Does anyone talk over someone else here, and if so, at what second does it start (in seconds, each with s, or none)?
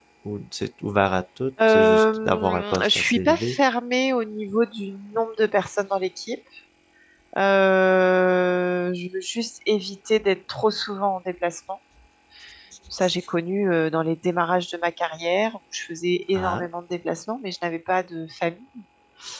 1.7 s